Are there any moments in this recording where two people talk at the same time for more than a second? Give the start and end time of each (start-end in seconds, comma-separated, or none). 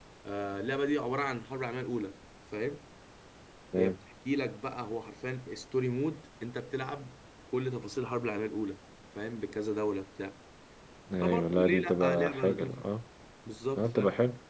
11.2-12.8